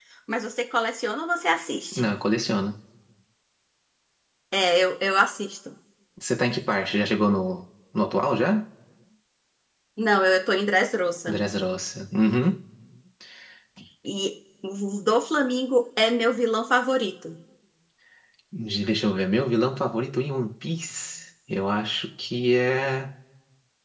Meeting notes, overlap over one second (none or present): none